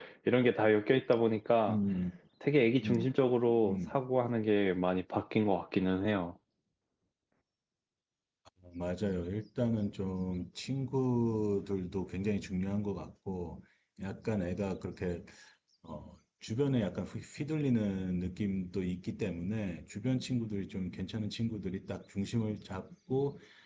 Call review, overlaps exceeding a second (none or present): none